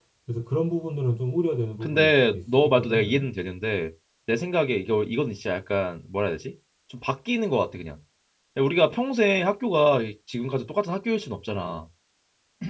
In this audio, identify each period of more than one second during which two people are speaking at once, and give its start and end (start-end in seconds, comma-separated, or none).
1.8-3.3